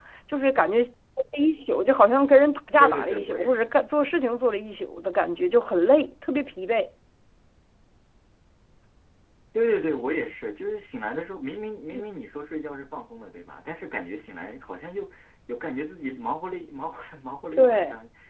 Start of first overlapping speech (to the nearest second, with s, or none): 3 s